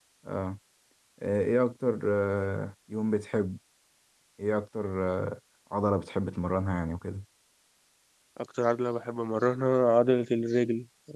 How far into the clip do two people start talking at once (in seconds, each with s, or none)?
none